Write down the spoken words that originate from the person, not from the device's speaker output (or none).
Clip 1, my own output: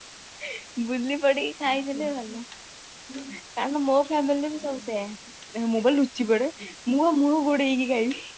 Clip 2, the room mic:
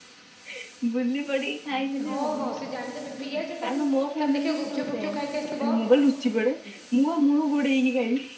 ହଁ, ହଁ, ସେ ଜାଣିଦେବେ ପିଆଜ ଟା ଯୋଉ ତମେ ଦେଖିବ ଗୁପଚୁପ ଫୁଫୁଚୁପ ଖାଇକି ଆସିଥିବ